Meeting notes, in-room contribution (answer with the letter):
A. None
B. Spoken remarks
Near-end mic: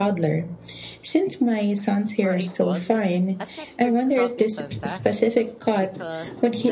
B